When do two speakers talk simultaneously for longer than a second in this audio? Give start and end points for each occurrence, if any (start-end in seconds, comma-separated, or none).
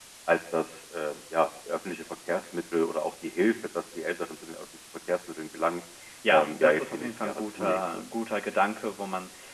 6.3-7.8